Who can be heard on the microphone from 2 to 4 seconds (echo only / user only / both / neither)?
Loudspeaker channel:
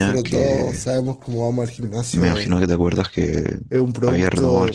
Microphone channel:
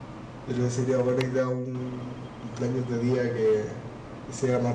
user only